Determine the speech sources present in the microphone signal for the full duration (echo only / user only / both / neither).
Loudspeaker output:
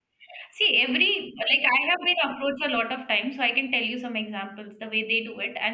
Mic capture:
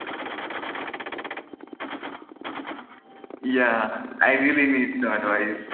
user only